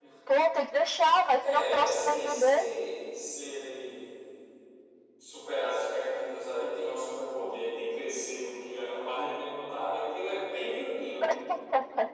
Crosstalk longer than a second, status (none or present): present